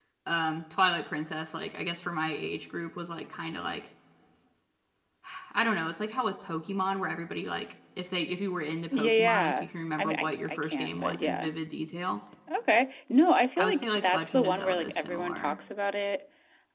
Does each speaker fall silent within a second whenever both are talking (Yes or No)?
No